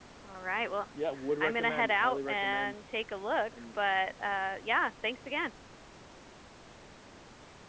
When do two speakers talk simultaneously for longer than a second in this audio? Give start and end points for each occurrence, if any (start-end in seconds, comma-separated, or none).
1.4-2.8